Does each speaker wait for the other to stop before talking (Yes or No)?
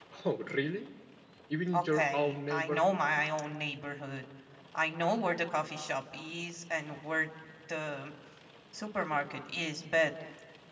No